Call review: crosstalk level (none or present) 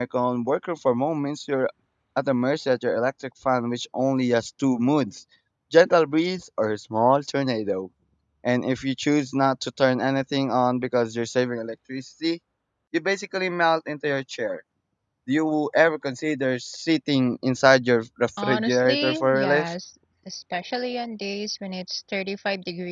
present